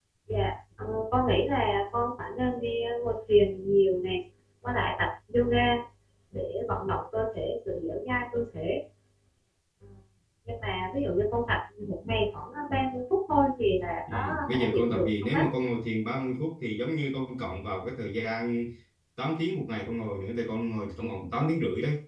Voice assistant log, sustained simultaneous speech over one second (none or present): present